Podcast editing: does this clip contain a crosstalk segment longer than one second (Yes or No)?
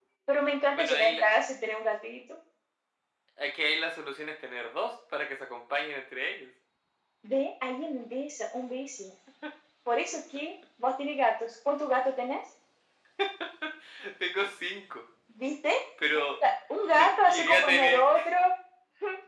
Yes